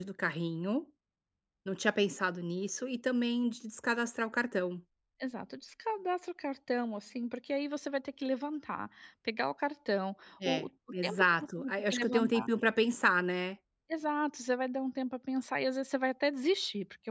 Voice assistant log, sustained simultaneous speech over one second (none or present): present